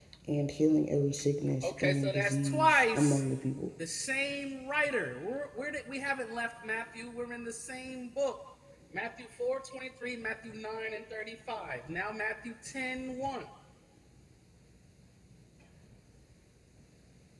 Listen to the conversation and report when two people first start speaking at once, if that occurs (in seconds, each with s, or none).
1.6 s